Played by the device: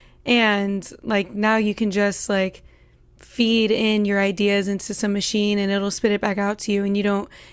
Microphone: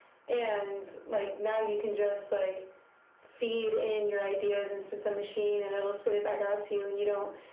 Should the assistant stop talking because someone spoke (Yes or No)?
No